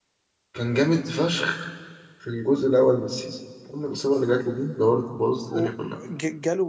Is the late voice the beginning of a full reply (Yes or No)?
Yes